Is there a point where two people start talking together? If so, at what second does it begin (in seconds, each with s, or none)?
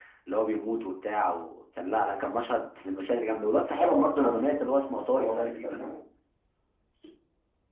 3.8 s